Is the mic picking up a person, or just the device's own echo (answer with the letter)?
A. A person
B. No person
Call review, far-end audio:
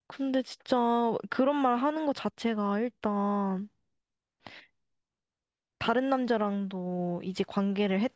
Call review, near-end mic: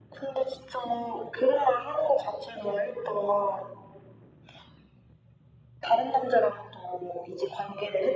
B